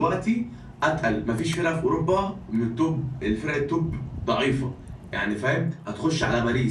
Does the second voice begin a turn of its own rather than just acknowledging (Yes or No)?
No